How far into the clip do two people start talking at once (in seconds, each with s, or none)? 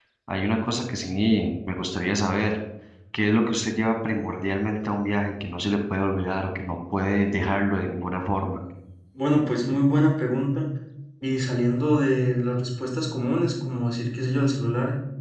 none